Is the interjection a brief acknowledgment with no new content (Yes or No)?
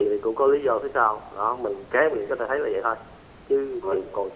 Yes